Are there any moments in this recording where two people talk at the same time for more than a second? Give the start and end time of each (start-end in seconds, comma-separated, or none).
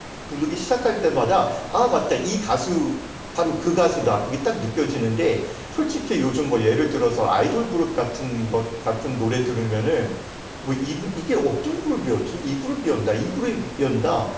none